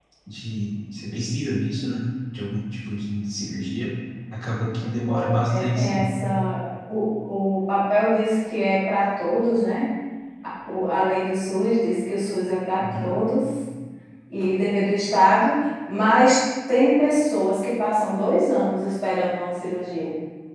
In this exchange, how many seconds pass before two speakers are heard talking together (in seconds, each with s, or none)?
4.8 s